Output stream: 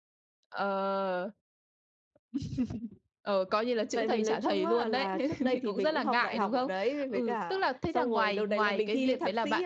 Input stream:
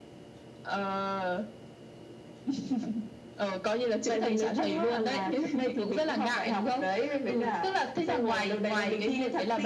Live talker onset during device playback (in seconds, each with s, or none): none